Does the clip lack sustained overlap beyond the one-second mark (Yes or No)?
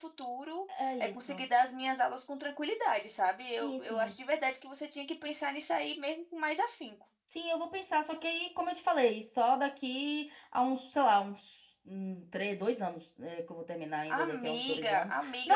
No